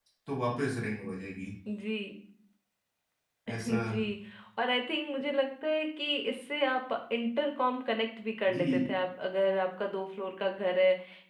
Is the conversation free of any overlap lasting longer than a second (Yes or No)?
Yes